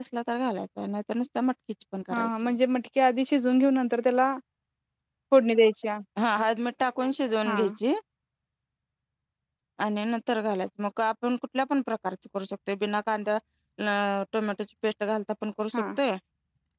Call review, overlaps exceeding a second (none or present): none